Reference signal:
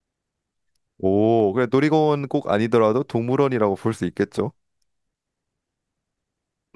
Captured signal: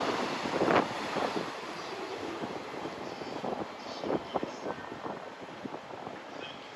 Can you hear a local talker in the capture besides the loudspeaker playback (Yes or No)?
No